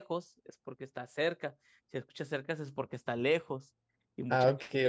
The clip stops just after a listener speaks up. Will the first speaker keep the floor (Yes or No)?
No